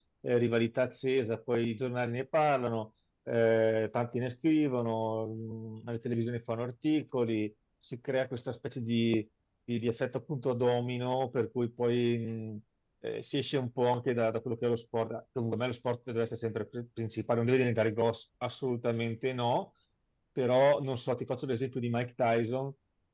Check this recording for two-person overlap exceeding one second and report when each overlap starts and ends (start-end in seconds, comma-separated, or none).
none